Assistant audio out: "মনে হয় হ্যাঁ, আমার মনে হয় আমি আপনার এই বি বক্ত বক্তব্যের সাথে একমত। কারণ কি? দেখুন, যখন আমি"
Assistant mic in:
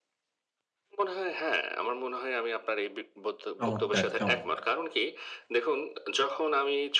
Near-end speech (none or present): present